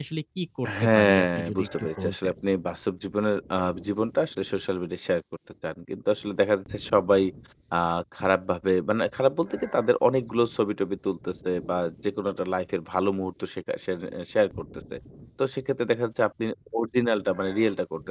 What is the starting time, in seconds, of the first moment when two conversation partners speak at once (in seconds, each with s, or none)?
0.8 s